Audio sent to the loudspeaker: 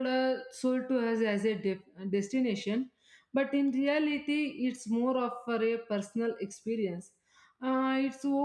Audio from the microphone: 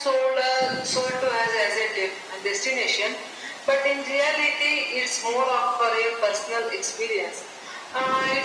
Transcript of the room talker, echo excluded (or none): none